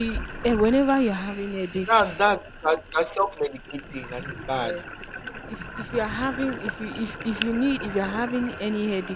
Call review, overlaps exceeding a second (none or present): none